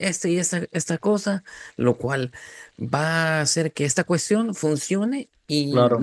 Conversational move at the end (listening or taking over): listening